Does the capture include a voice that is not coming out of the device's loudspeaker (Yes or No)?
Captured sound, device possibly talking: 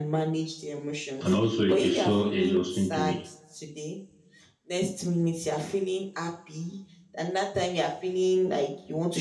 Yes